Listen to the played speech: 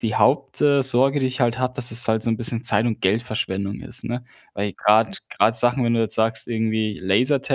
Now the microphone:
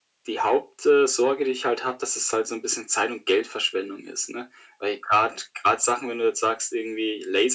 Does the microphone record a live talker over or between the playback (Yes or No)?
No